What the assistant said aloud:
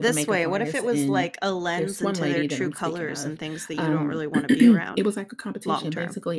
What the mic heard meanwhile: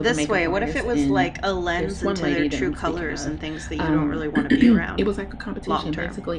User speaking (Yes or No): No